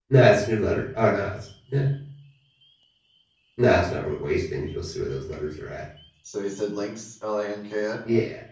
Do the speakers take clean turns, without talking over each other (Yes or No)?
Yes